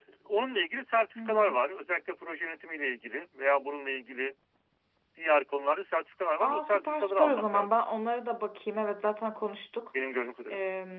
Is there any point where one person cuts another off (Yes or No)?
Yes